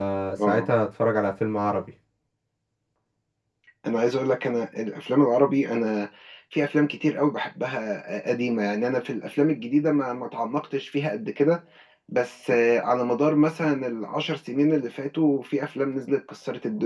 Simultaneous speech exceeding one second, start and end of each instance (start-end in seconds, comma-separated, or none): none